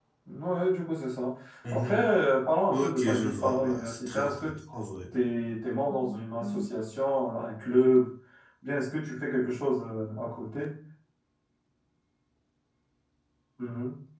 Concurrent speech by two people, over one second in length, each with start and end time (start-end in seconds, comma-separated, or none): 2.7-4.5